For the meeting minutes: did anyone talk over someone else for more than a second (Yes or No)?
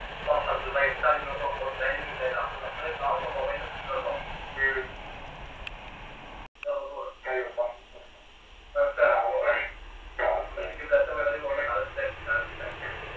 No